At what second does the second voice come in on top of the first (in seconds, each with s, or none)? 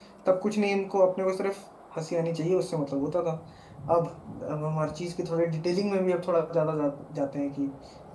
none